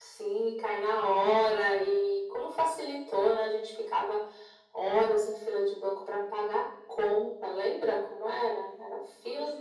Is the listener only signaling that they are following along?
Yes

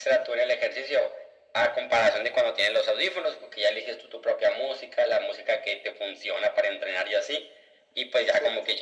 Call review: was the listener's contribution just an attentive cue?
Yes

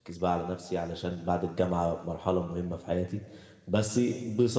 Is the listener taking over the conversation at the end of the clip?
No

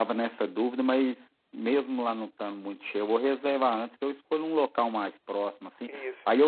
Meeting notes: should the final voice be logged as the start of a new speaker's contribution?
No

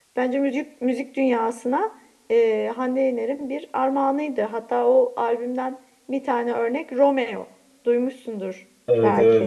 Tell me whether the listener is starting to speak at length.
Yes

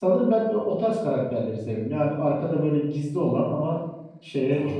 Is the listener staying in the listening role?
No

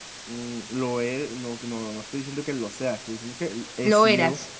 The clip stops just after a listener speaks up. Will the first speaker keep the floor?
Yes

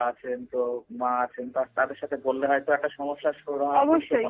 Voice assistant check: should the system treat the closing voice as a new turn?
Yes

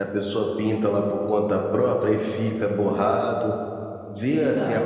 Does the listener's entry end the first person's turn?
Yes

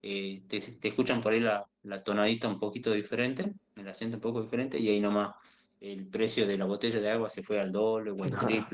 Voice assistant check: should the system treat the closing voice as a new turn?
No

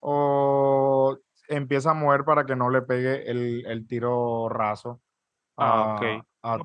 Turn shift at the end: Yes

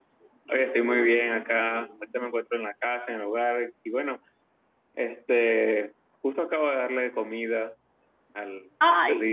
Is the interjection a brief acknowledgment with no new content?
No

